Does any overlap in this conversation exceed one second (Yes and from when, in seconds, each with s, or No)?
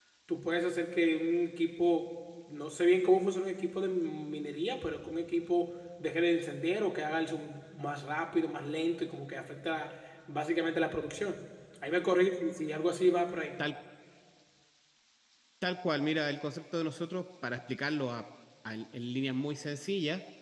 No